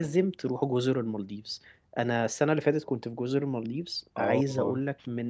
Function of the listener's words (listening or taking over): listening